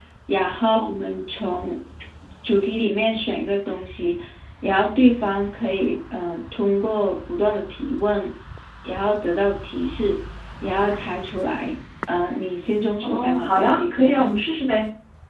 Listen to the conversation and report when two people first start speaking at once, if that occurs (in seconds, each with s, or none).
13.0 s